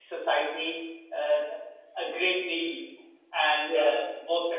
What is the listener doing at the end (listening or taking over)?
listening